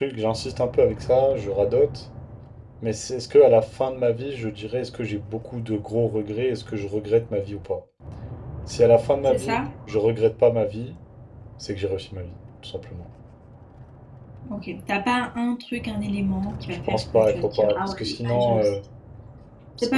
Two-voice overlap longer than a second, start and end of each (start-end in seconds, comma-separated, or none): 16.9-18.8